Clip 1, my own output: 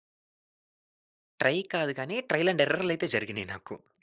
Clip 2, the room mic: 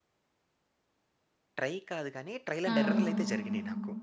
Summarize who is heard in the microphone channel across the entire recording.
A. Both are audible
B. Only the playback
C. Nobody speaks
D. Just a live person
A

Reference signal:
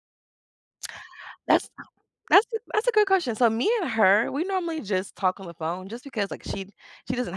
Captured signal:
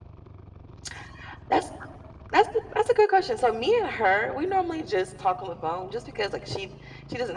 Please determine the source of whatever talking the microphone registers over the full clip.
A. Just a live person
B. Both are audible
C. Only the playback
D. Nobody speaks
C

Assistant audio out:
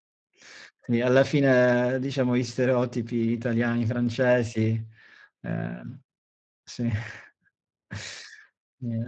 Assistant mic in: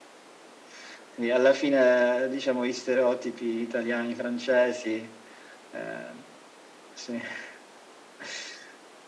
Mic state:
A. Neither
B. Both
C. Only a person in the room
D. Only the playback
D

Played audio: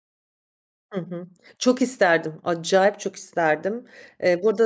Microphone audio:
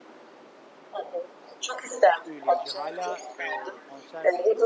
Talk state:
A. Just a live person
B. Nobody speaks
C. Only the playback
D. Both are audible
D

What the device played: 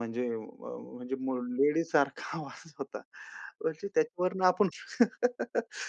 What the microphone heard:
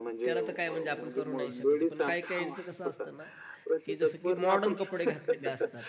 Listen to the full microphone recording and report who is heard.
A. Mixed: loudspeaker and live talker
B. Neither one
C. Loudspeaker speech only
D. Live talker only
A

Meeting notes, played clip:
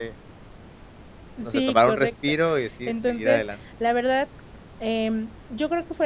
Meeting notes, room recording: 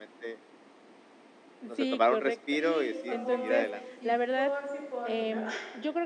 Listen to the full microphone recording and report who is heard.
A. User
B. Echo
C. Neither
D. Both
D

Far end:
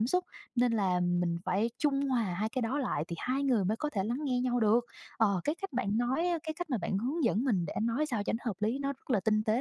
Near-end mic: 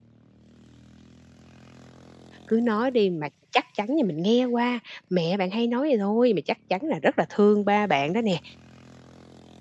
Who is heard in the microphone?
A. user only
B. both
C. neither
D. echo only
A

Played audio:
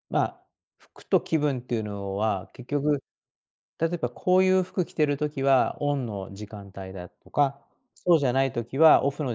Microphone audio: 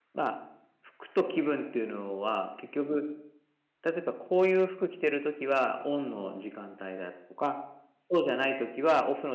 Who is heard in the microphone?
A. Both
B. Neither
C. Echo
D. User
C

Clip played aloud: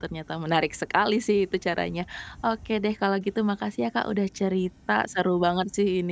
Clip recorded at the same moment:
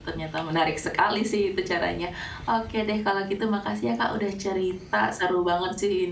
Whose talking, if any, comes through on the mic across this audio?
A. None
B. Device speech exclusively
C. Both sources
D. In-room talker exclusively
B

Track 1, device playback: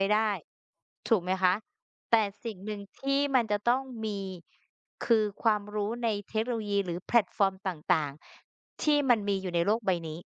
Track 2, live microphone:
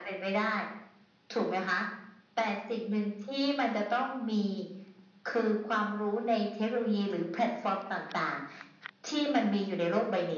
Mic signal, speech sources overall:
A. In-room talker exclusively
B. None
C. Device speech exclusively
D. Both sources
C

